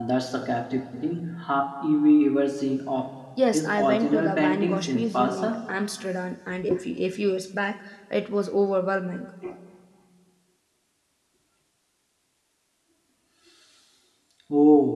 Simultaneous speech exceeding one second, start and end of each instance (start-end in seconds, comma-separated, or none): 3.5-5.6